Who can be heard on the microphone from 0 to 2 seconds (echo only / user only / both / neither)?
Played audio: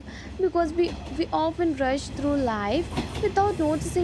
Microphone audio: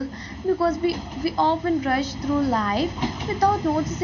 echo only